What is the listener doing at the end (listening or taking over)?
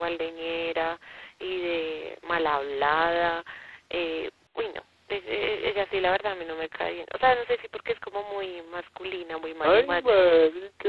taking over